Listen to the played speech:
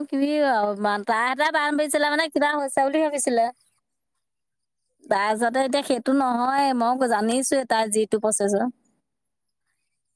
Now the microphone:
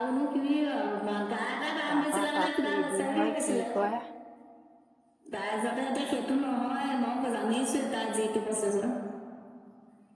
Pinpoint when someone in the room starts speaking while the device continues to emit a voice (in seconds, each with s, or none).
1.9 s